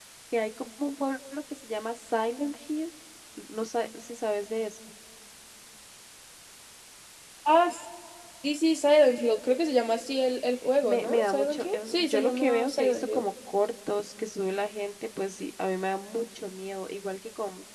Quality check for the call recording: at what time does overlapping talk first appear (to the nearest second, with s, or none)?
11 s